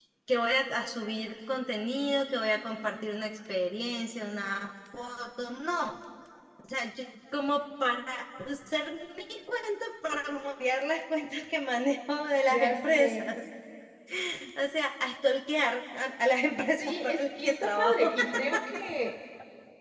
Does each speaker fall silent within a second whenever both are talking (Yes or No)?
No